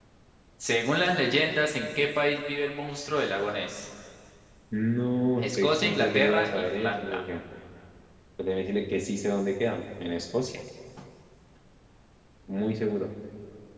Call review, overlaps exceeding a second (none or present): present